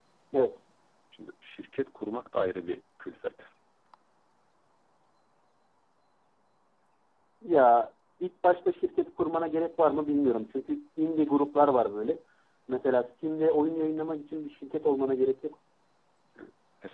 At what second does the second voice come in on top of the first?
none

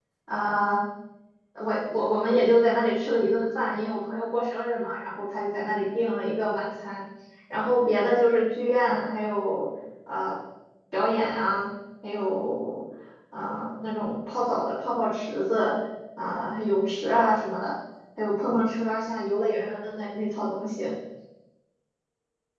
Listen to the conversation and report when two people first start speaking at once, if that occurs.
none

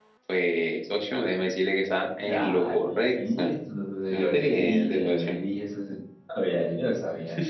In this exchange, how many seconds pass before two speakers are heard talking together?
2.3 s

